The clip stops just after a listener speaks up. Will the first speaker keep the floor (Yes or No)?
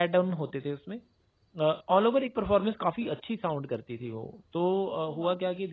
Yes